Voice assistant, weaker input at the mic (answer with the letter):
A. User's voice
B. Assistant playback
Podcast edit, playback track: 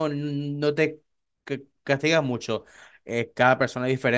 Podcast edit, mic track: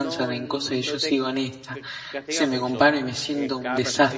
B